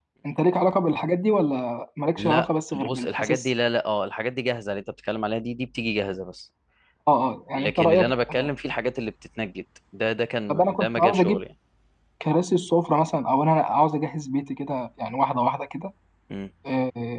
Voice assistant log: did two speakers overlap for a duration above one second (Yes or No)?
Yes